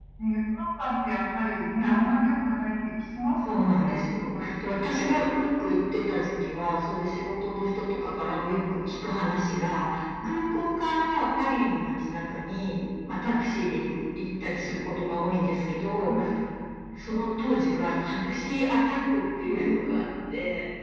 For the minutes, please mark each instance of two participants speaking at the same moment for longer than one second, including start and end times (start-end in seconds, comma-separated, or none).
3.4-5.0